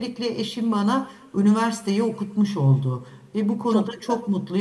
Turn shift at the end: No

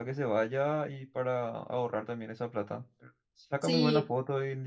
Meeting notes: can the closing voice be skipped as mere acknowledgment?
Yes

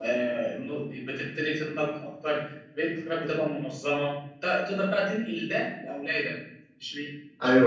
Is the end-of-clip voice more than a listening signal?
Yes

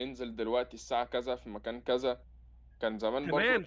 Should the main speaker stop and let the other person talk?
Yes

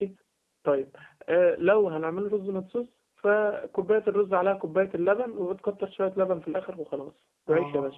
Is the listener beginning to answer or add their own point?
No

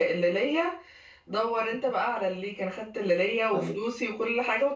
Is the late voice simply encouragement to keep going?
Yes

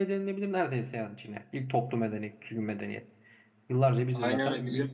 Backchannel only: No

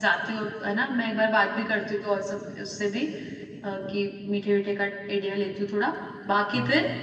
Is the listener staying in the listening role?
Yes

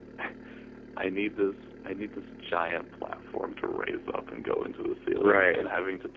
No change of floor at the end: Yes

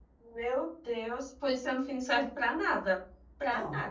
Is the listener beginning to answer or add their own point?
Yes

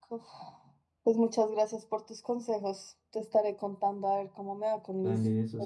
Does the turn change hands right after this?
Yes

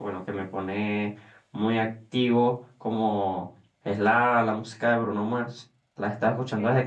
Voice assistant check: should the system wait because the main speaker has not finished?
Yes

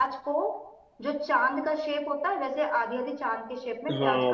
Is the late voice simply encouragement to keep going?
No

